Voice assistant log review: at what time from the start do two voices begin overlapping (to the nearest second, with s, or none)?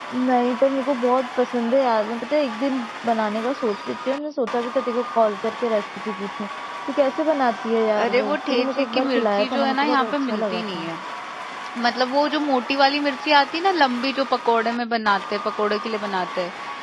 8 s